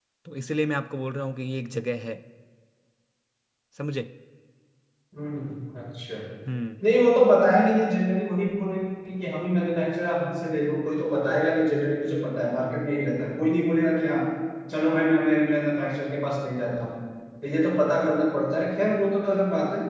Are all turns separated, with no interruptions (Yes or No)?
Yes